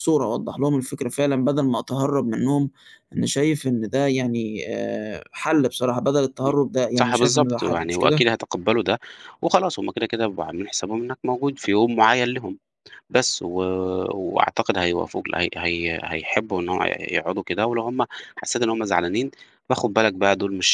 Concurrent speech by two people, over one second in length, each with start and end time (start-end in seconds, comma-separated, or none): 7.0-8.2